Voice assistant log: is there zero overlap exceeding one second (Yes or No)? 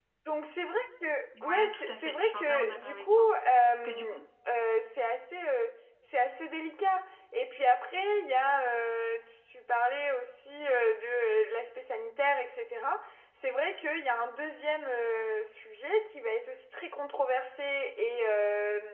No